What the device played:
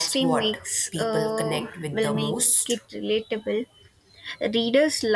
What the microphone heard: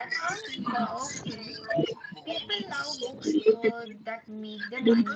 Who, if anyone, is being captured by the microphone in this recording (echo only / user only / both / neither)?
both